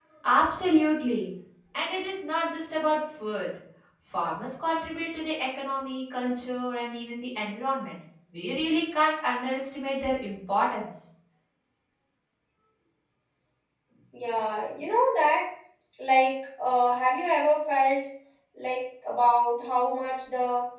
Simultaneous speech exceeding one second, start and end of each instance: none

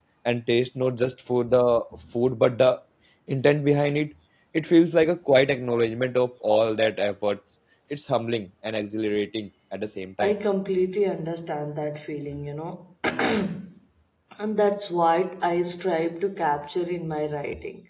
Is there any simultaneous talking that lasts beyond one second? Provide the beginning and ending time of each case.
none

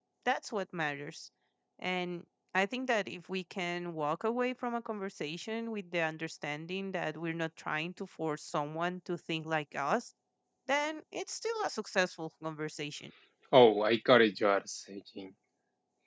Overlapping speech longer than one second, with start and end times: none

